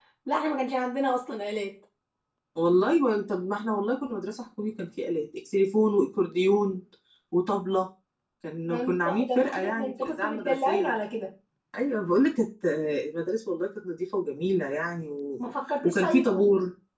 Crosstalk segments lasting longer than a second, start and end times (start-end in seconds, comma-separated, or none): 8.7-10.9